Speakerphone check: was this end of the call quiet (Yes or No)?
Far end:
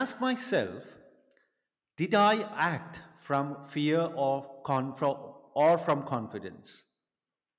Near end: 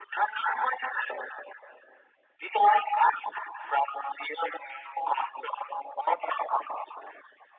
Yes